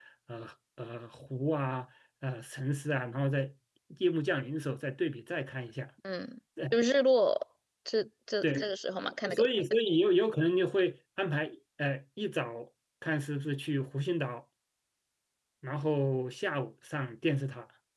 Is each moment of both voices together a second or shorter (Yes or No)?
Yes